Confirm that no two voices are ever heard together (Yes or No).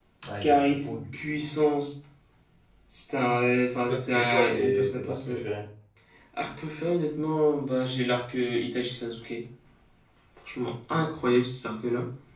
No